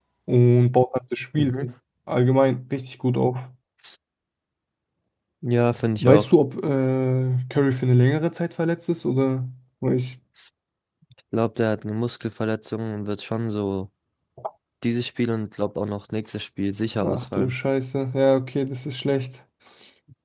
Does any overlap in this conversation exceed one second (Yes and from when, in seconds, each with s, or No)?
No